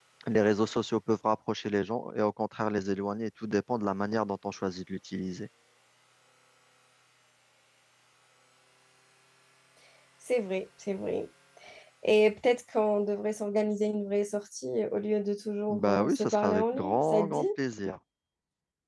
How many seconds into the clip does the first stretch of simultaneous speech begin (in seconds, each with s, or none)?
15.7 s